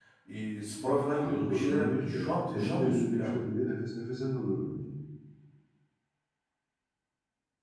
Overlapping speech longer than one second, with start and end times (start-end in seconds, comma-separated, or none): 1.1-3.4